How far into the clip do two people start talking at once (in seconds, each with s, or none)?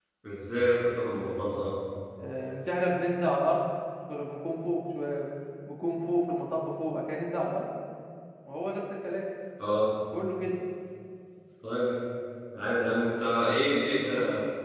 none